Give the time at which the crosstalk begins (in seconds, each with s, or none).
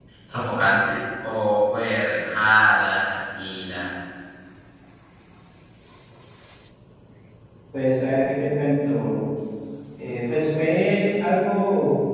none